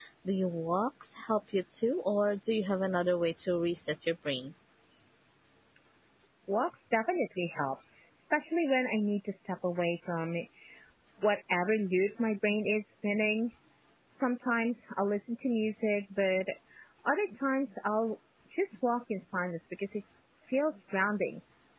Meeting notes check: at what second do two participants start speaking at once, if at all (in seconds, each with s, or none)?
none